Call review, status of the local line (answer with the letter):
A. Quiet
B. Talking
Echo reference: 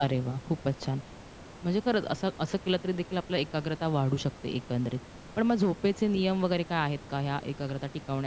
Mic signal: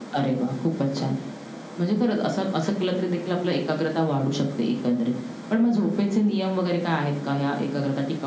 A